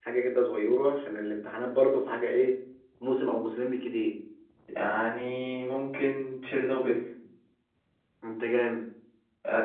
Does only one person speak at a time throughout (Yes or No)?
Yes